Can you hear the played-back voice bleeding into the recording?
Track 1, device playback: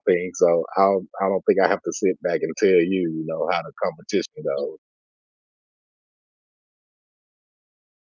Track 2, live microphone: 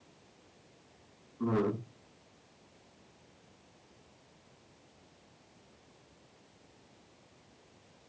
No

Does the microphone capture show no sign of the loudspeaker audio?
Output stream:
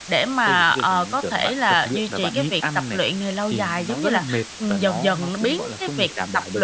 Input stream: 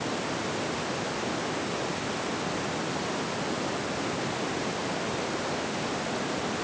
Yes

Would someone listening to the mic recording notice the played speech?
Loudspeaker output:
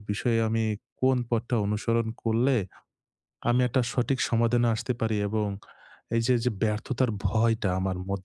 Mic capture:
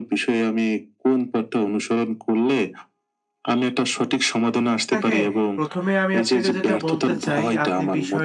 Yes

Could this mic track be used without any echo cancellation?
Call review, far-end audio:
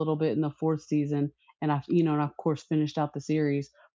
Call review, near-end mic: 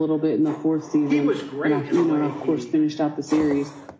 No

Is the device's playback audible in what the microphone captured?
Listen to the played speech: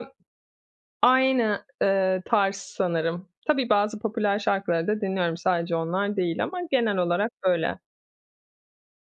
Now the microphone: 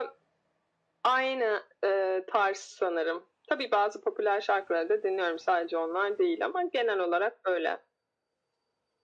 Yes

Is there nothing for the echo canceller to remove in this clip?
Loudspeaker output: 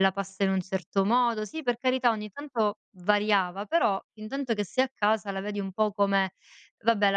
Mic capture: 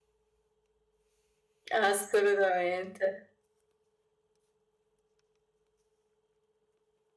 Yes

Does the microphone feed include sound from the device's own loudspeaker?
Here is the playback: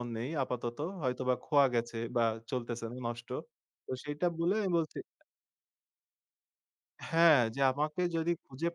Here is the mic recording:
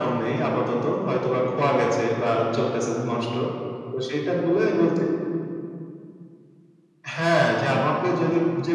Yes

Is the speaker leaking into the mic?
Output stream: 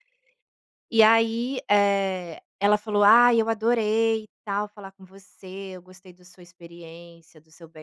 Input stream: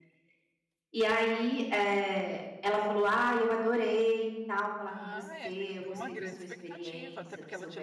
Yes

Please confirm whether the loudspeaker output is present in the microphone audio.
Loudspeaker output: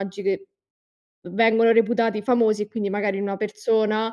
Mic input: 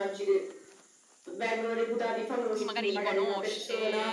Yes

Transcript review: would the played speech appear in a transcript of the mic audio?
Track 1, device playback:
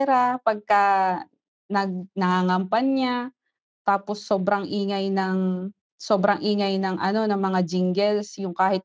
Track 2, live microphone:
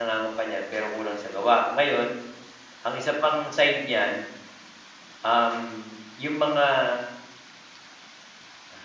No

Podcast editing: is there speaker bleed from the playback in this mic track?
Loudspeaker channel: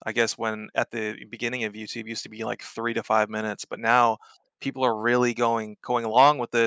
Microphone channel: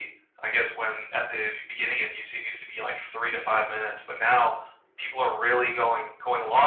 Yes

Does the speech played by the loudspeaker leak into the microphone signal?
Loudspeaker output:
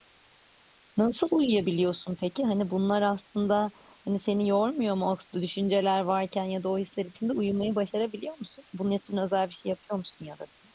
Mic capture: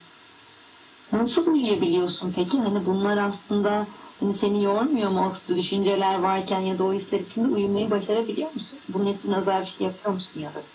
Yes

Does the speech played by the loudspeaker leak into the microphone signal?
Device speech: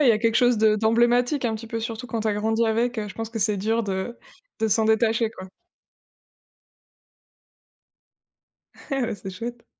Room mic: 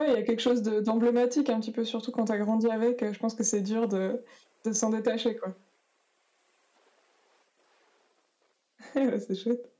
Yes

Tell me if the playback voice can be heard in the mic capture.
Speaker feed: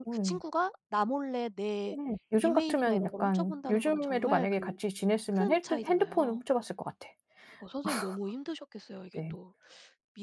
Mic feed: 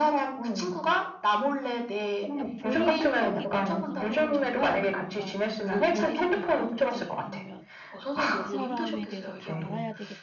Yes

